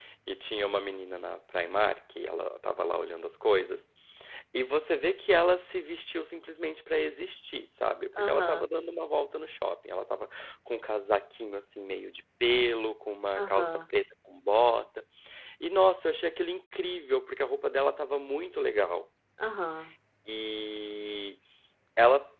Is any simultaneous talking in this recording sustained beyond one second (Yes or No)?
No